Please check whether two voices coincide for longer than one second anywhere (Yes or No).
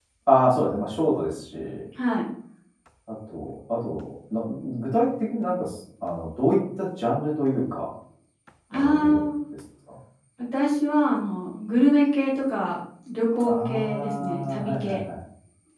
Yes